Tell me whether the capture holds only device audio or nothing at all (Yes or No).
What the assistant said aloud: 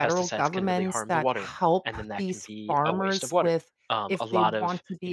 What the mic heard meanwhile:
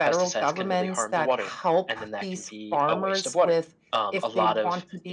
Yes